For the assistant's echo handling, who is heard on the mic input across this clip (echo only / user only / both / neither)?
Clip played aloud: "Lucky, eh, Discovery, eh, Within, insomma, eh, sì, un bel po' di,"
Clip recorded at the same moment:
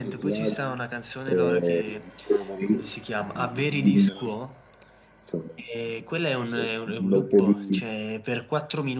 both